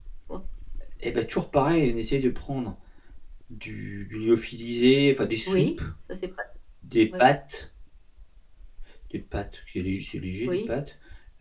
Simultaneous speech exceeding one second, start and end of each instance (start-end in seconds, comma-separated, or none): none